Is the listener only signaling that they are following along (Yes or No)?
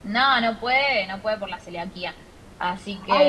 No